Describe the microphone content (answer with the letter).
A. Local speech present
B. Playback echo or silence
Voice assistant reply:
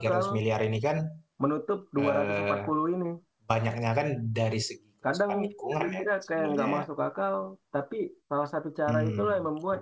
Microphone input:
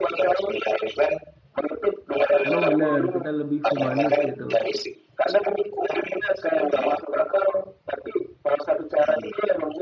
A